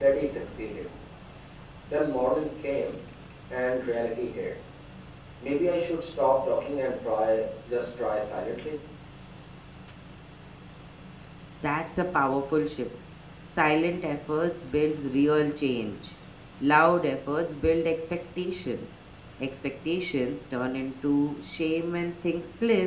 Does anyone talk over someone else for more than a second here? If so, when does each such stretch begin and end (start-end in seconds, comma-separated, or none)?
none